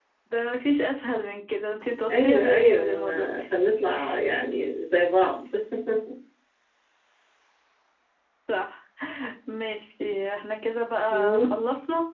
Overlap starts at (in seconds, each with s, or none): 2.1 s